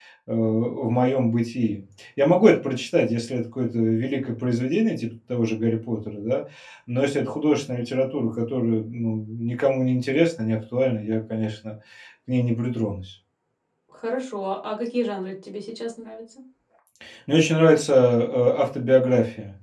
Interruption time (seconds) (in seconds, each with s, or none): none